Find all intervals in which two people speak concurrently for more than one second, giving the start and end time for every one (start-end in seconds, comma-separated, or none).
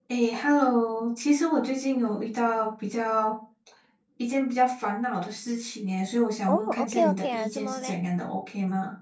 6.5-7.9